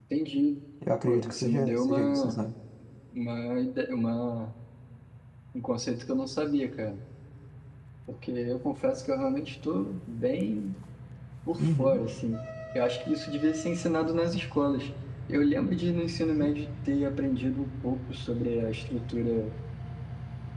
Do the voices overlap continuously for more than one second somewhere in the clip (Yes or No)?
Yes